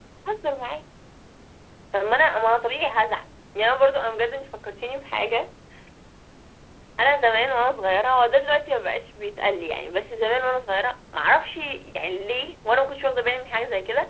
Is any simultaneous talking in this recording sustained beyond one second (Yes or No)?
No